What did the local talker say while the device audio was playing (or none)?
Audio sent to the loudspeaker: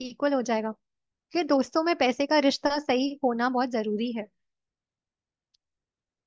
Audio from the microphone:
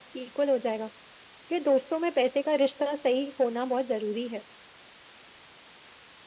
none